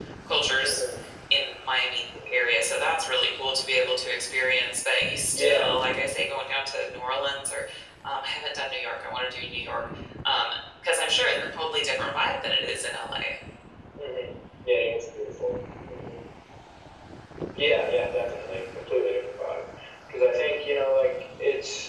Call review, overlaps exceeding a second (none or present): none